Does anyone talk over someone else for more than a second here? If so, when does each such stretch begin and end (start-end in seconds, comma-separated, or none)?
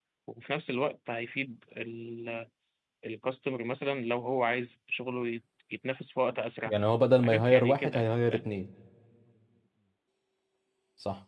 7.2-8.5